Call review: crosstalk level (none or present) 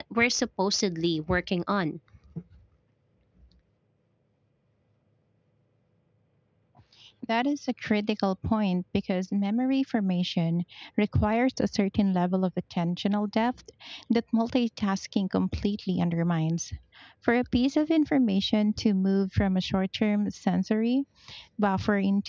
none